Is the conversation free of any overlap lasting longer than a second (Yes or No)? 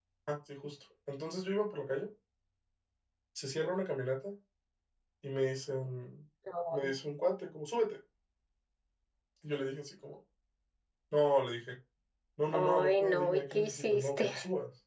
No